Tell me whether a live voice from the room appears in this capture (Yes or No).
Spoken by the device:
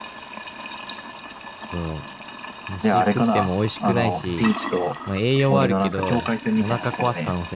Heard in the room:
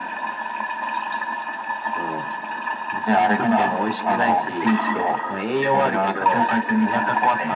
No